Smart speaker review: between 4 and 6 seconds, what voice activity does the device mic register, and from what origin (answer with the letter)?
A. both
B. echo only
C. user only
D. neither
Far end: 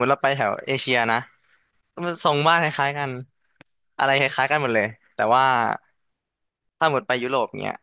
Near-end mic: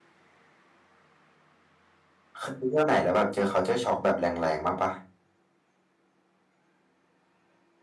C